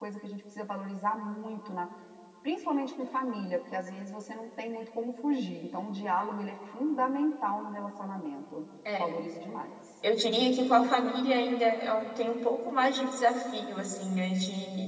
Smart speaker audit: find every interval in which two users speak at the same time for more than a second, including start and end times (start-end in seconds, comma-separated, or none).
none